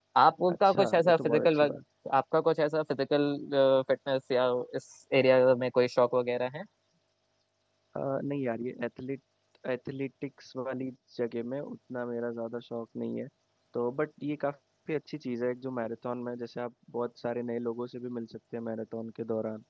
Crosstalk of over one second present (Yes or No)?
Yes